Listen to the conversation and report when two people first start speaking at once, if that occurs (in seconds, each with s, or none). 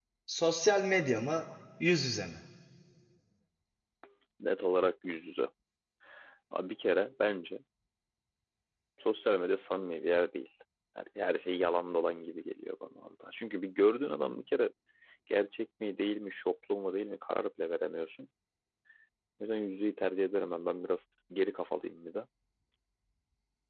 none